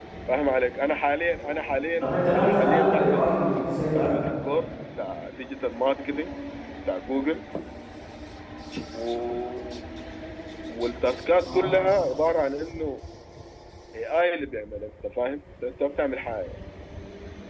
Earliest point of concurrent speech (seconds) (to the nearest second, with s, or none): 2 s